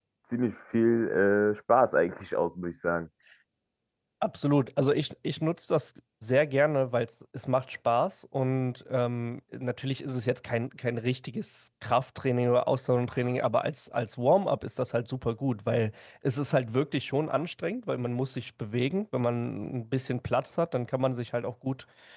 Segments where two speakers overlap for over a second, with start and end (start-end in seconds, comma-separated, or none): none